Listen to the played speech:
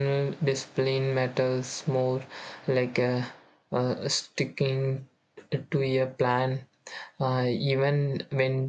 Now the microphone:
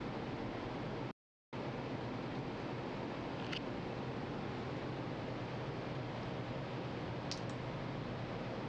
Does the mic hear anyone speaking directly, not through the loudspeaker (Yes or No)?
No